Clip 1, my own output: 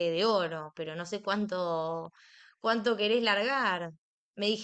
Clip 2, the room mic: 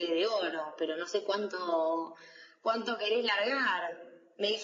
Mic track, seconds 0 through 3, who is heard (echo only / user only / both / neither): echo only